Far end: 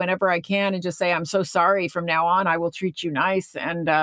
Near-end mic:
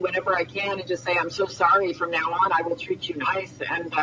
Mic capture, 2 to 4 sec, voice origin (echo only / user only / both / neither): echo only